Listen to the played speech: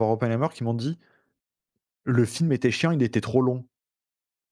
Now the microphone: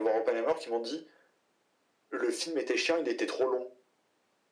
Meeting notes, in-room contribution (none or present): none